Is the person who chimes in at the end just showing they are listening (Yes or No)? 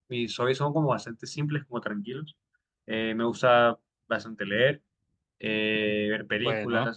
Yes